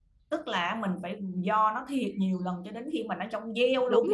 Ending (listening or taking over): taking over